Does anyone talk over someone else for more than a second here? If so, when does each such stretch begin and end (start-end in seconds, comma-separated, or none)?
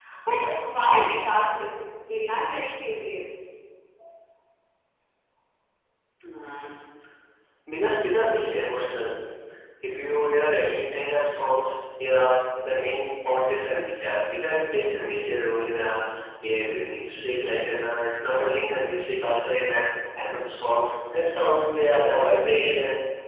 none